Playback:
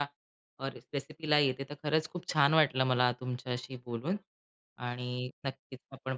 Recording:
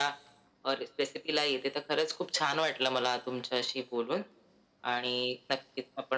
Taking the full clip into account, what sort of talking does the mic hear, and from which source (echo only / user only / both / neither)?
echo only